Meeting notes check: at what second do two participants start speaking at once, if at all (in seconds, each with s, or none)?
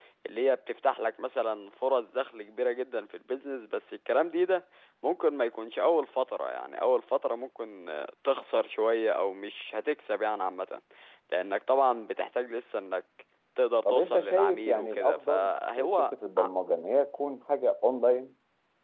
13.8 s